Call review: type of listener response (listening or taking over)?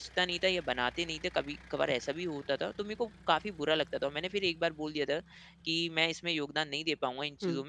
listening